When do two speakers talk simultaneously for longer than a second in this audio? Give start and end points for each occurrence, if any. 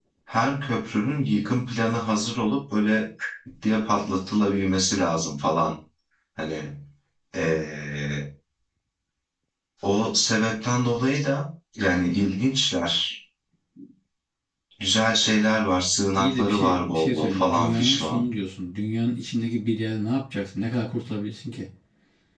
16.2-18.2

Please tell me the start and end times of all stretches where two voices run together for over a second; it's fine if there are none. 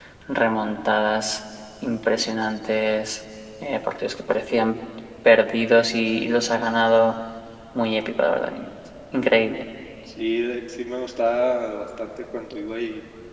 none

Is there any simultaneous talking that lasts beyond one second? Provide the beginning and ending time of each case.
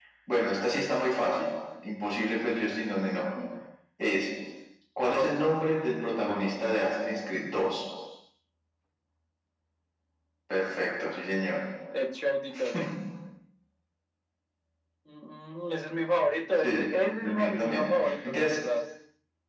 17.2-18.6

